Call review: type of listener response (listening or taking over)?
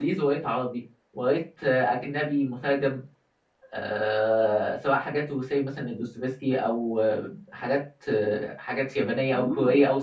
listening